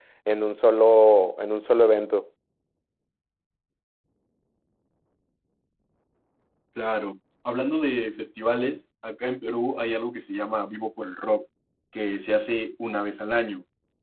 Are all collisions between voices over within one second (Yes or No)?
Yes